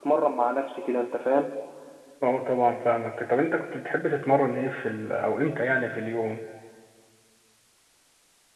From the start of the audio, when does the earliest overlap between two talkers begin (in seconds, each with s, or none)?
none